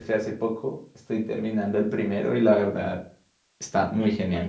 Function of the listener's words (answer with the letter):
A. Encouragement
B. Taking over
B